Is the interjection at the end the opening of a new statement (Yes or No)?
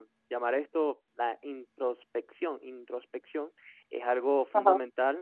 No